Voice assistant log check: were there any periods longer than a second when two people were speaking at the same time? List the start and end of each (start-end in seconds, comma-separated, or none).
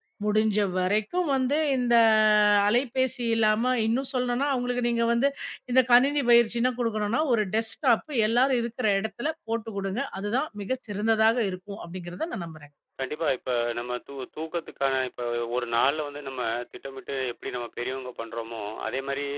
none